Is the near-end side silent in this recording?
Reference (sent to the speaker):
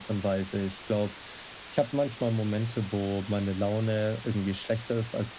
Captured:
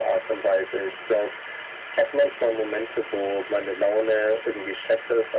Yes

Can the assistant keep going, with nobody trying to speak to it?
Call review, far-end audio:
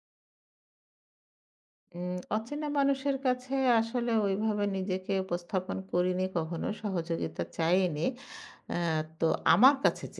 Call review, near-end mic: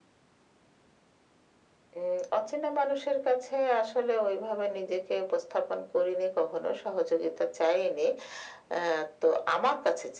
Yes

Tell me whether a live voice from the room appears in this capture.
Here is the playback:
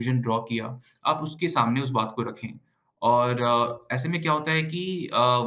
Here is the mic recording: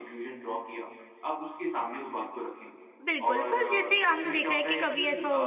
Yes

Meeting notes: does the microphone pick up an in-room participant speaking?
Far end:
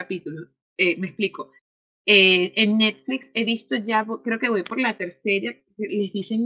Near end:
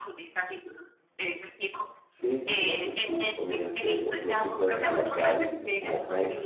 Yes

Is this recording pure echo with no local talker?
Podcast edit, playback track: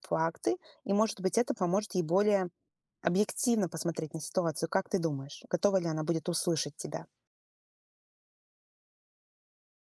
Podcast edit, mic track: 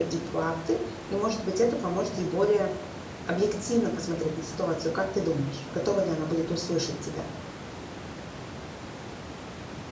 Yes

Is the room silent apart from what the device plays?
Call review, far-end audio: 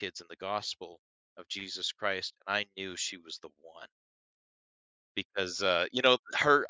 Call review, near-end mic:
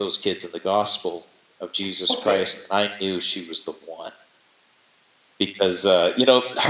No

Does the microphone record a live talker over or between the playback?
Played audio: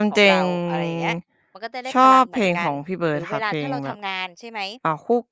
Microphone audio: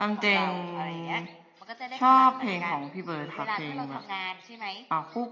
No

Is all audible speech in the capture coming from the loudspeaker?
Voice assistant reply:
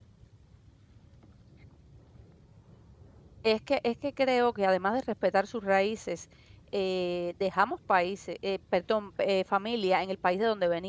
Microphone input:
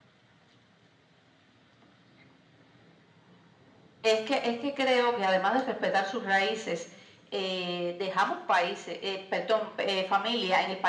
Yes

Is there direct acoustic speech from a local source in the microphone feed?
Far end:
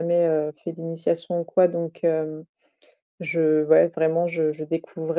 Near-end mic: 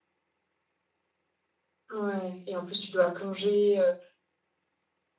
Yes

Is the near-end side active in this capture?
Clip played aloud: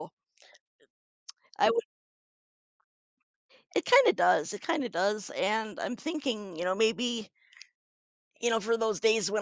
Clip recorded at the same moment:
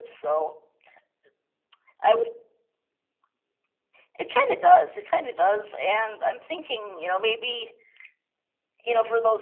No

